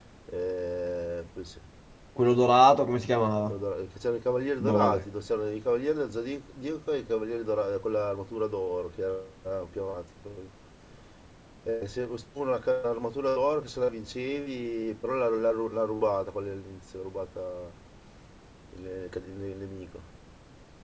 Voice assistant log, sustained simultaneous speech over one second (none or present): none